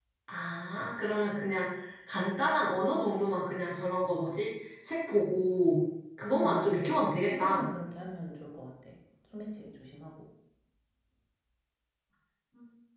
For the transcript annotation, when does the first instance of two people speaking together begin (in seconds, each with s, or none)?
6.3 s